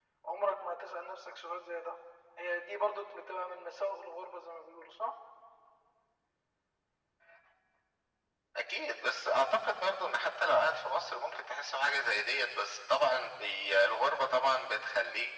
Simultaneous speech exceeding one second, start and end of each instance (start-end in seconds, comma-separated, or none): none